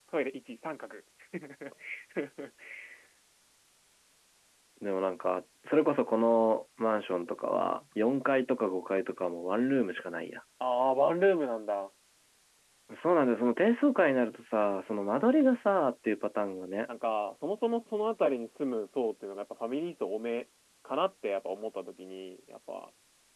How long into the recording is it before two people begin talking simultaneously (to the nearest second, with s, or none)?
none